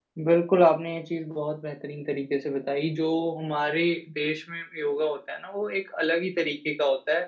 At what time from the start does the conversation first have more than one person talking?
none

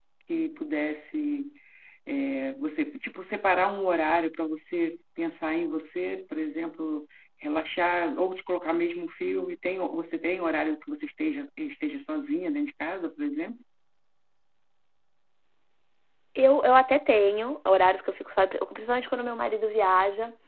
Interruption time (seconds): none

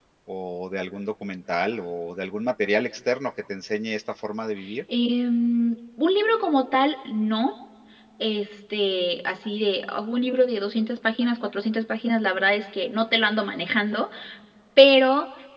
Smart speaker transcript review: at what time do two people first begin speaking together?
none

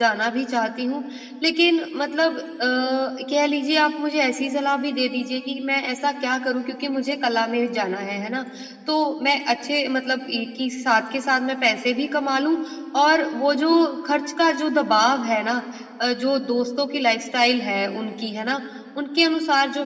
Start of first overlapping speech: none

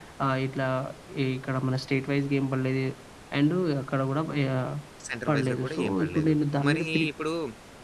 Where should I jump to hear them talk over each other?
5.3 s

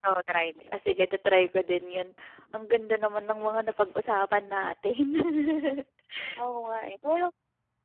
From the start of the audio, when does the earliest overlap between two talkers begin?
none

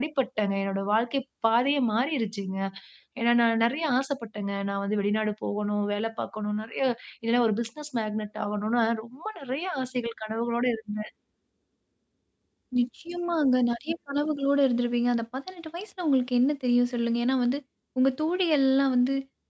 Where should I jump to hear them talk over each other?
none

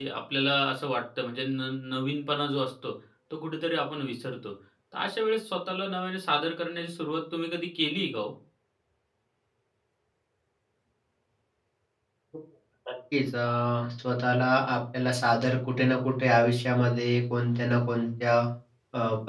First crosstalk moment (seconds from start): none

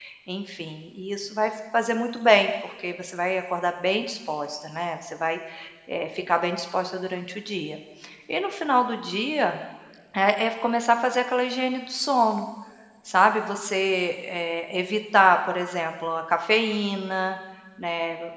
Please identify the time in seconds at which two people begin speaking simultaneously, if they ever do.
none

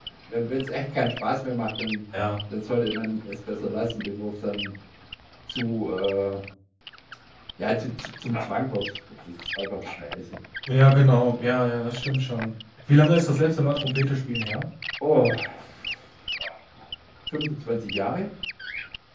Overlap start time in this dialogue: none

